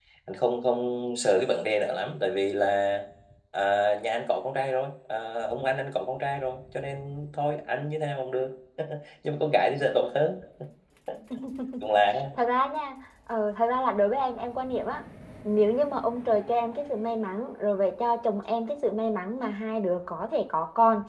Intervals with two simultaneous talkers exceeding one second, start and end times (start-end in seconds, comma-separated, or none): none